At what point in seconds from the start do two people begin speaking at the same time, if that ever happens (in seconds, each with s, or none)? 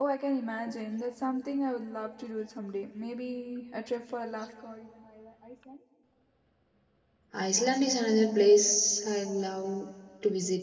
none